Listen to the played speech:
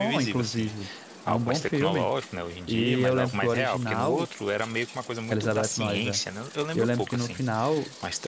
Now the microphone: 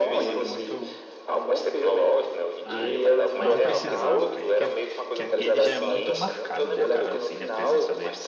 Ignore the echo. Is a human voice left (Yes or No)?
Yes